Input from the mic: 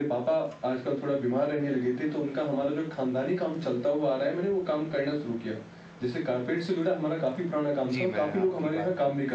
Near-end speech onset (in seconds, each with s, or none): 7.9 s